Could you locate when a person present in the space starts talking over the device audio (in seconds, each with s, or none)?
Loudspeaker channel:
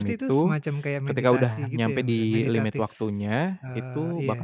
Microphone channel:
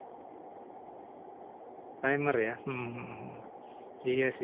2.0 s